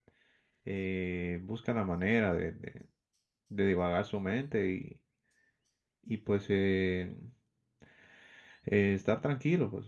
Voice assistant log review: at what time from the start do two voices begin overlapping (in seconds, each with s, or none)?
none